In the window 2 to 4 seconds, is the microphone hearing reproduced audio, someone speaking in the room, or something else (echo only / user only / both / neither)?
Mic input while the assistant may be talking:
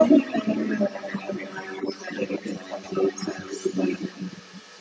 echo only